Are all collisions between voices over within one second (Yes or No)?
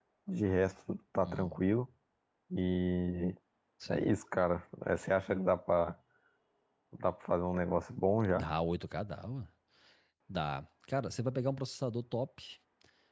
Yes